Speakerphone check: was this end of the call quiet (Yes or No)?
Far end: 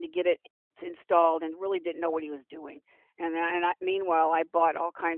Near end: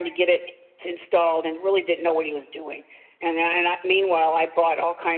Yes